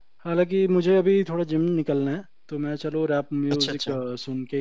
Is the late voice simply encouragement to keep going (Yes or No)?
Yes